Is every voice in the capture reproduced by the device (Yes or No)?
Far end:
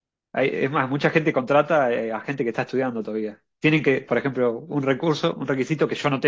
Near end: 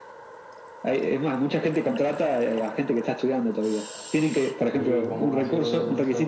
No